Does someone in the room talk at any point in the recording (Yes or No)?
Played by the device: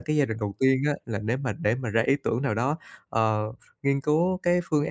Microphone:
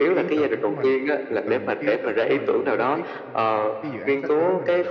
Yes